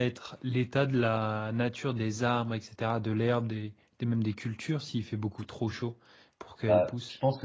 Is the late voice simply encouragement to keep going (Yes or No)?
No